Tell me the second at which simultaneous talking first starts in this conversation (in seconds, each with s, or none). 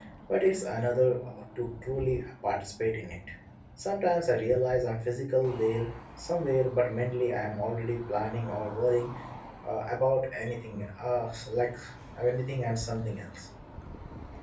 none